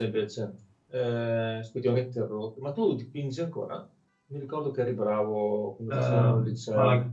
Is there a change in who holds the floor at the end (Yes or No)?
Yes